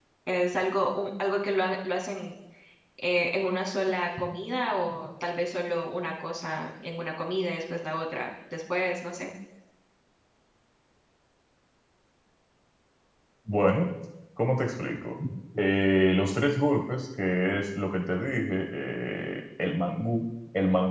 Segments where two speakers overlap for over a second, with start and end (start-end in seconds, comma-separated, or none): none